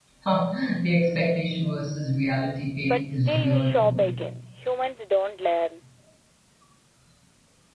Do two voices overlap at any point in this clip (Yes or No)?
Yes